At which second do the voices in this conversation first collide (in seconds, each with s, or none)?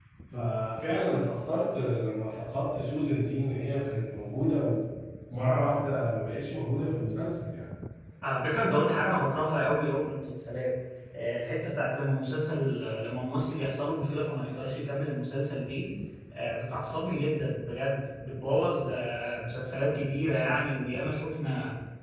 none